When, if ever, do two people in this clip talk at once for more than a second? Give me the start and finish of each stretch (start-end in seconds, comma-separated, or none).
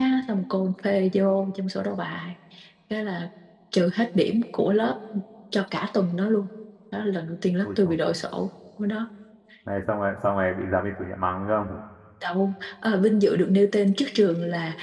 none